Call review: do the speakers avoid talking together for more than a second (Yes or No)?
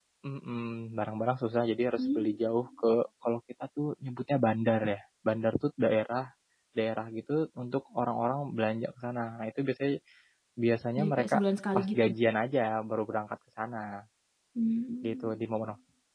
Yes